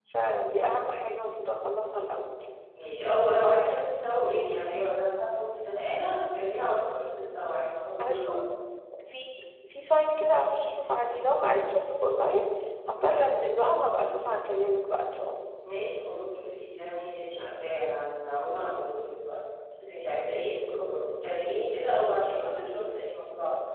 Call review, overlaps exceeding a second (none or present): none